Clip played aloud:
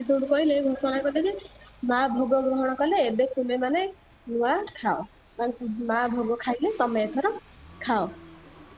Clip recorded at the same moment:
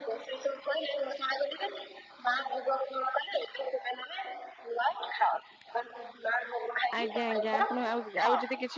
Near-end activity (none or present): present